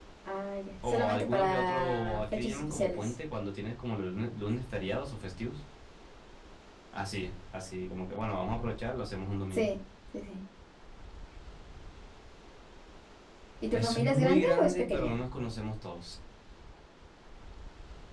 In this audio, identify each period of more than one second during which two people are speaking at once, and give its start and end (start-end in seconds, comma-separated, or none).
0.9-3.2, 13.7-15.2